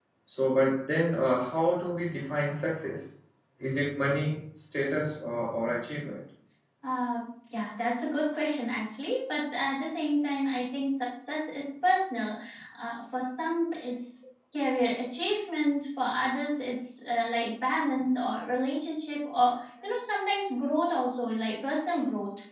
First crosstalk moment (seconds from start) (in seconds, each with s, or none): none